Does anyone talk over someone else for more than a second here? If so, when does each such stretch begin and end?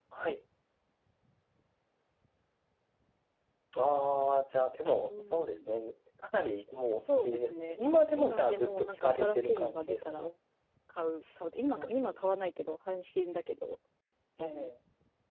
7.1-10.3

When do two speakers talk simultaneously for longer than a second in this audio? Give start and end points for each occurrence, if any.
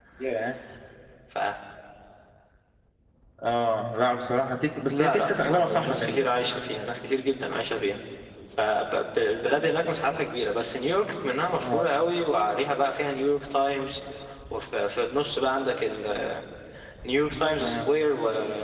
4.9-6.2

